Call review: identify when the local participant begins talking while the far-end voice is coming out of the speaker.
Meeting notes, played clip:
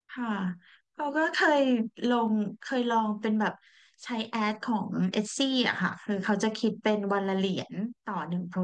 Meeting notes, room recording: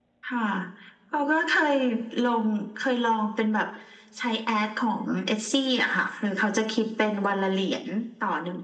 none

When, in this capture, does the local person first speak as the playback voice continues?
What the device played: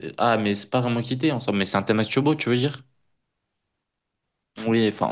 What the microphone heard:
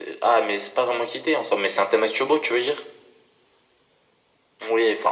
none

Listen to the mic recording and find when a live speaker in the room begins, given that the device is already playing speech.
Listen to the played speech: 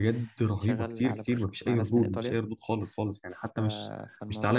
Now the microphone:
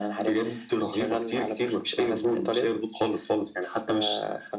none

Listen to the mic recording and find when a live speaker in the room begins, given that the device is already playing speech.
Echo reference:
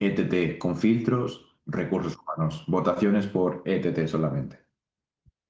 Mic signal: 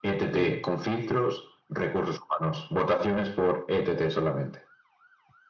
0.3 s

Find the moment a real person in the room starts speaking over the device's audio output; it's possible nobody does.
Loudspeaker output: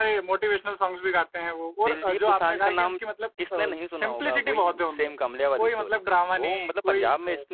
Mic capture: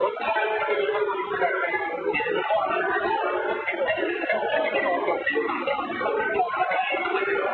none

